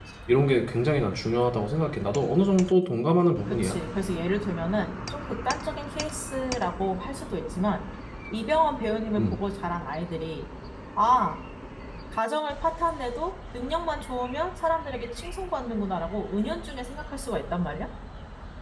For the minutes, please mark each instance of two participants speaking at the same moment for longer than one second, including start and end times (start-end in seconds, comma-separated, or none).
none